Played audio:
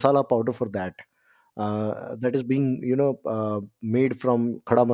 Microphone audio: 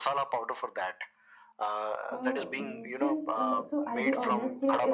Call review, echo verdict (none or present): present